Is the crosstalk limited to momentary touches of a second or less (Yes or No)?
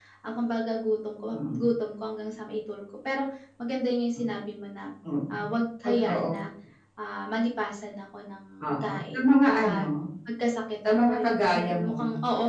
No